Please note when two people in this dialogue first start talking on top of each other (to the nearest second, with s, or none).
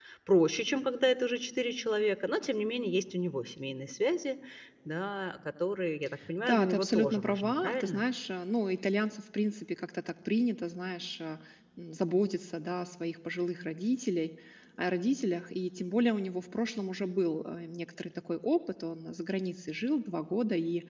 6 s